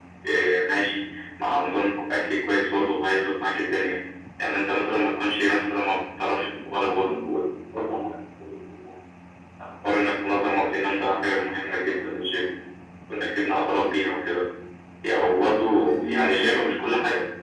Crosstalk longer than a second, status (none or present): present